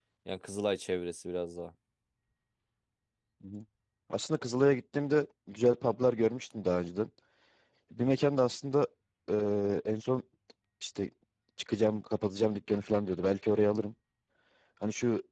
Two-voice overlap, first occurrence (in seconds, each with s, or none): none